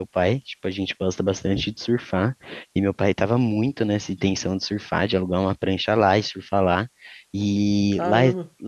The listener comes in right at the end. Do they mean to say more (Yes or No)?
No